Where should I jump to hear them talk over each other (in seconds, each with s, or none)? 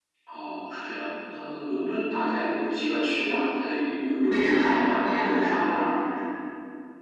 4.3 s